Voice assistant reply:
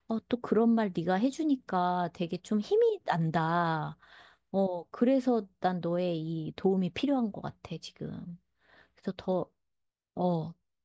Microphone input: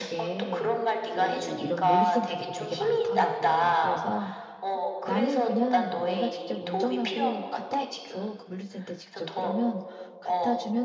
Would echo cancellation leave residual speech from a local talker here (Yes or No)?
Yes